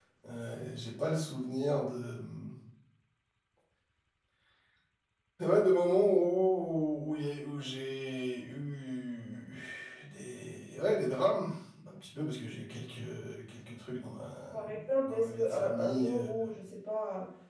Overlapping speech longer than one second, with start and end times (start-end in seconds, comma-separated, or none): 15.1-16.3